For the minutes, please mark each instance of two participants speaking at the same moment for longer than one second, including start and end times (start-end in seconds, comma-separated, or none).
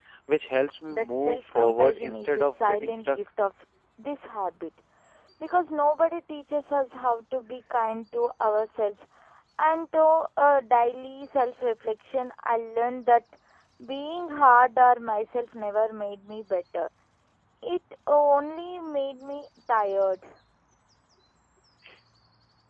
0.9-3.2